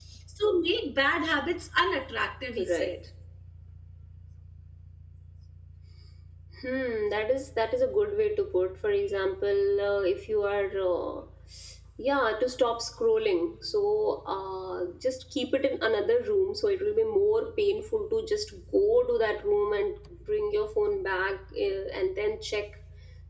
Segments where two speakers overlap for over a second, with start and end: none

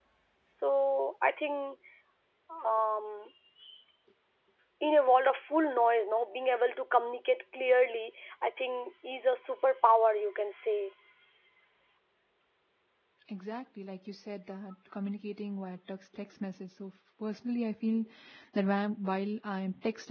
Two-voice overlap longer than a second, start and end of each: none

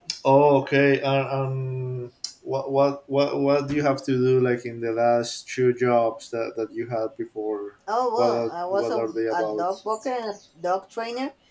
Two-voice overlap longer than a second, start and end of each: 8.2-9.6

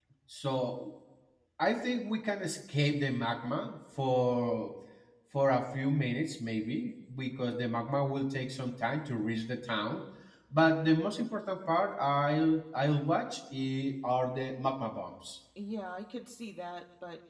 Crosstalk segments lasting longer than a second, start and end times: none

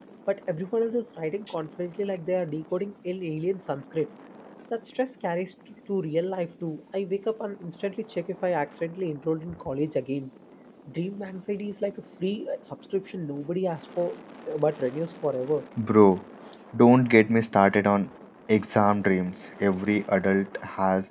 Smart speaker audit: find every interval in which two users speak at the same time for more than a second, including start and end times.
none

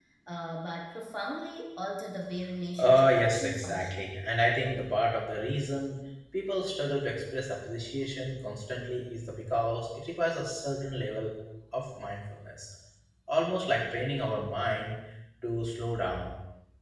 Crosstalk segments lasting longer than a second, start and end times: 2.8-4.0

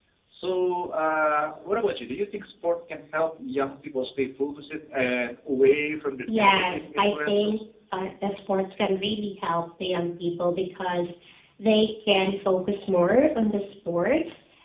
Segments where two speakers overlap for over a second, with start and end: 6.3-7.6

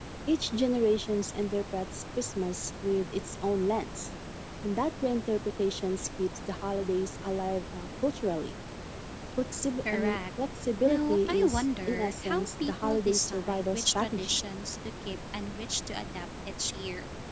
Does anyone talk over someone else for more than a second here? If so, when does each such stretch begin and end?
10.8-14.4

